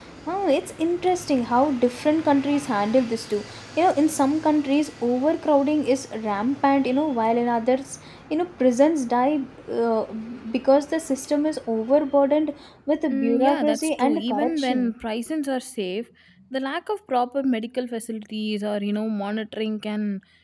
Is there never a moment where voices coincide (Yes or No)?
No